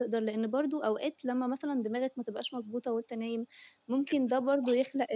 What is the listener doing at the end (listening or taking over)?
listening